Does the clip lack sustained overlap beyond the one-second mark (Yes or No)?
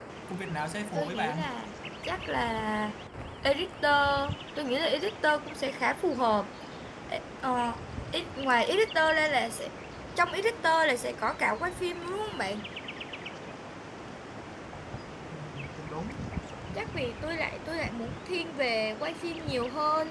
Yes